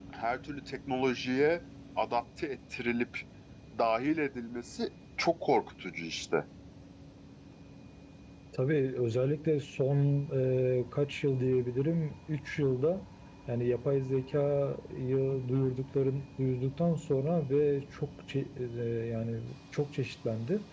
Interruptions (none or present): none